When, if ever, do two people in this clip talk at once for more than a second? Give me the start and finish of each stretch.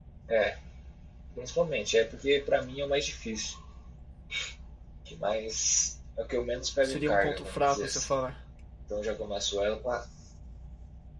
6.8-8.1

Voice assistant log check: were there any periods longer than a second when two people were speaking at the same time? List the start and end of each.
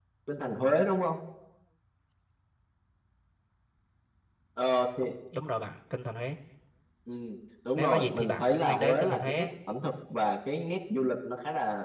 7.8-9.5

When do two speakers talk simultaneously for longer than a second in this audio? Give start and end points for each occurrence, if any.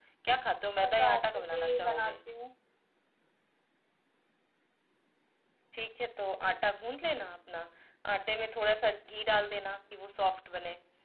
0.8-2.1

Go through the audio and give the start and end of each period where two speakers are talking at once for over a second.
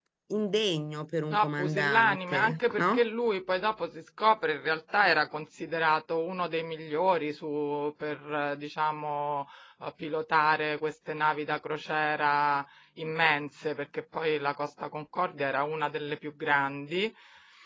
1.3-3.1

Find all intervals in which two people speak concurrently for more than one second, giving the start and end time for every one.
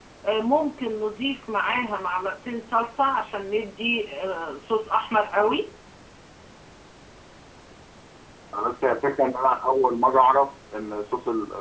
none

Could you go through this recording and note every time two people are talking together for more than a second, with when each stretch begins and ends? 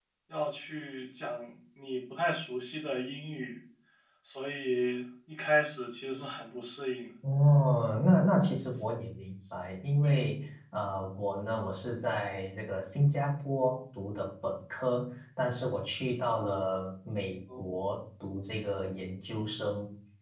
none

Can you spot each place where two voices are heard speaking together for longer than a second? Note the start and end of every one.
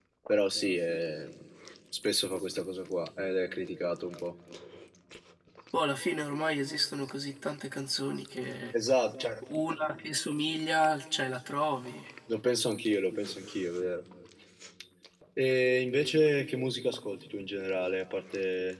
none

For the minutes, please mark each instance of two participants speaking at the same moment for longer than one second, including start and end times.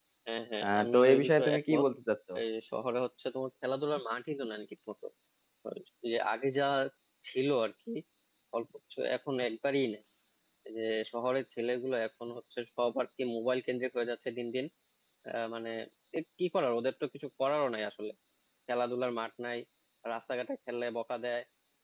0.6-1.8

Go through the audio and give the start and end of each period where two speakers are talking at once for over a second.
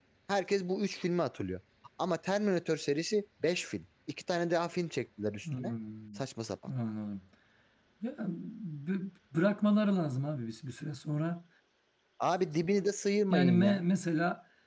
none

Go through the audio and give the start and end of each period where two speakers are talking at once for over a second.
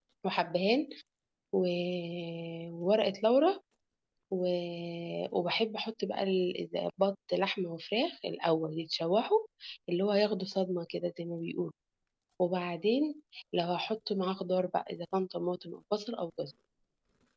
none

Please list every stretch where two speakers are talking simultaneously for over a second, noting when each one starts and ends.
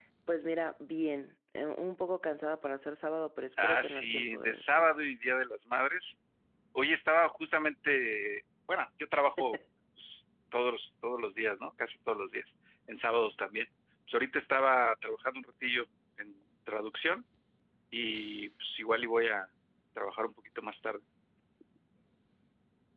3.6-5.1

